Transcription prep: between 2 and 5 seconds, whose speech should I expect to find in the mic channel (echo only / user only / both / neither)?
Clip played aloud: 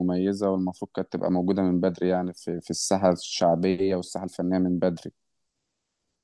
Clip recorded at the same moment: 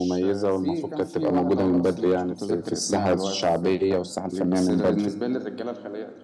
both